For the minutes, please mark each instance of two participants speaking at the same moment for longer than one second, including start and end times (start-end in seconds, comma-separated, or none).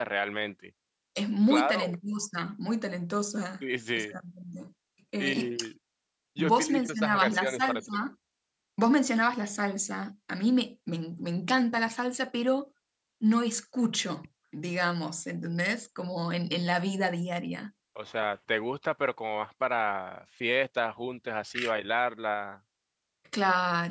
6.4-8.1